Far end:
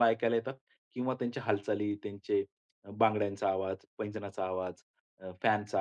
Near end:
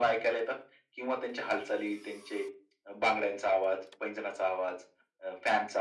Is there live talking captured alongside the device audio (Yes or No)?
No